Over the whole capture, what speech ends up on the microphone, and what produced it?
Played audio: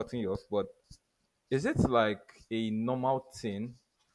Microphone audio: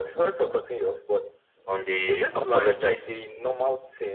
both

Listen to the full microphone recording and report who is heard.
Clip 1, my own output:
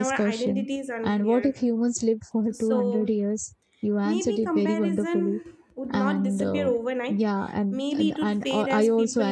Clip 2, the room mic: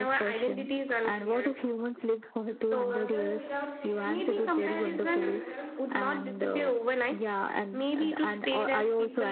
both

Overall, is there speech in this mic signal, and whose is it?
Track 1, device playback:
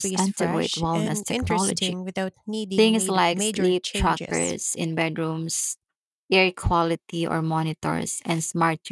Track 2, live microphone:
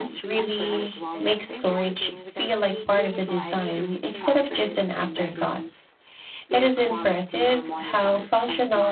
both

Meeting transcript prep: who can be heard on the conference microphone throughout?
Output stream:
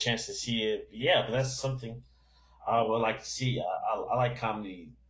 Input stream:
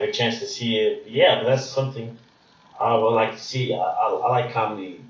echo only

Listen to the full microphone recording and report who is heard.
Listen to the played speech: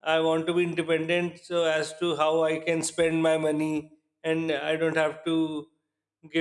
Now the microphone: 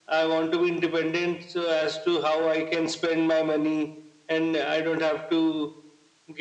echo only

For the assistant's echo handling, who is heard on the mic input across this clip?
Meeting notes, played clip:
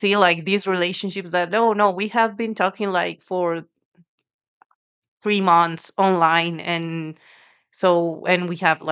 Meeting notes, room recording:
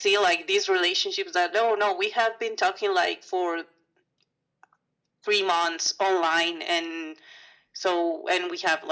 echo only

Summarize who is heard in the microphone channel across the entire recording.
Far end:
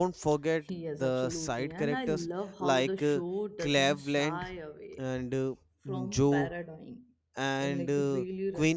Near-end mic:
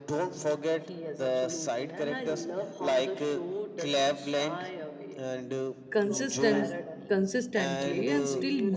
both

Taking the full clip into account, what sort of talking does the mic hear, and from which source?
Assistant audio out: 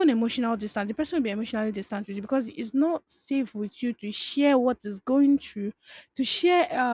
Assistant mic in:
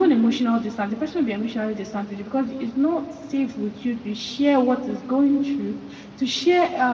echo only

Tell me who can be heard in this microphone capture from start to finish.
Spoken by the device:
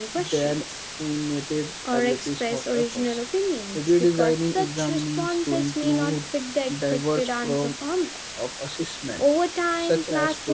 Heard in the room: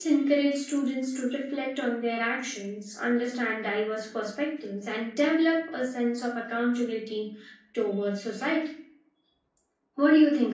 user only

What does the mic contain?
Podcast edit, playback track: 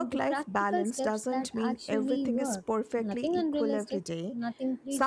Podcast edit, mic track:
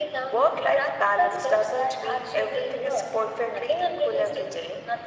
echo only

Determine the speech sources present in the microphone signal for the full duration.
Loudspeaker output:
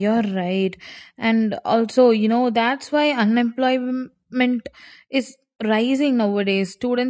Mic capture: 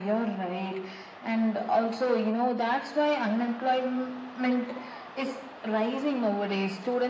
echo only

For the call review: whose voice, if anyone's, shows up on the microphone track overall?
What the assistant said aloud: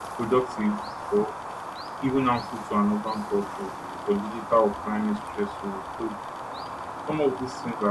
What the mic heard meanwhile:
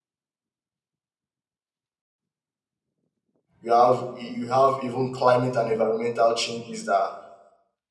user only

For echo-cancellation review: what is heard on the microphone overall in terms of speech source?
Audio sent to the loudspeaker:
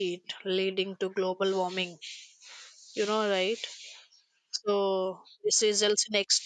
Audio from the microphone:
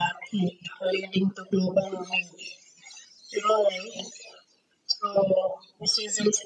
echo only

